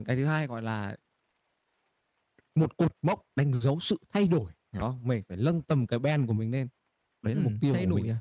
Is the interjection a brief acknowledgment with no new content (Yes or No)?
No